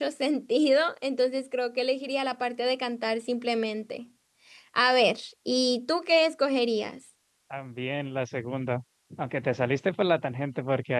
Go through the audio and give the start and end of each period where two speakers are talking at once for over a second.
none

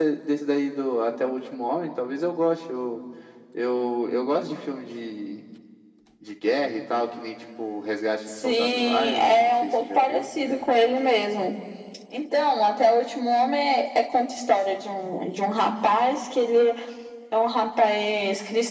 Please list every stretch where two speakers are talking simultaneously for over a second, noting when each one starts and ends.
8.4-10.2

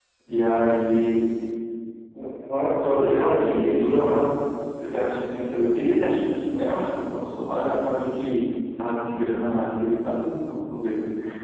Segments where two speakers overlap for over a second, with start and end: 2.9-4.2

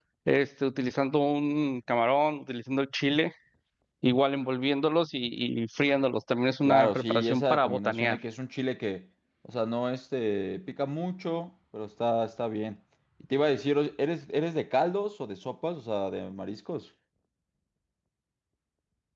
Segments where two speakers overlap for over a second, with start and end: 6.7-8.2

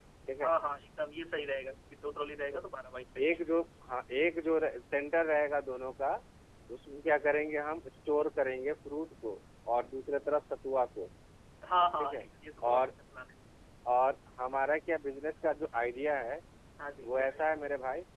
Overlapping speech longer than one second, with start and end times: none

